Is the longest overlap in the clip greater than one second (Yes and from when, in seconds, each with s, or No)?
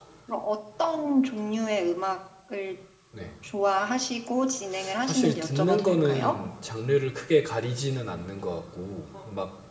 Yes, from 5.0 s